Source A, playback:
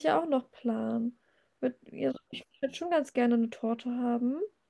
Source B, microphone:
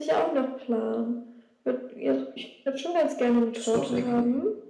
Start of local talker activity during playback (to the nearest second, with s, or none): 4 s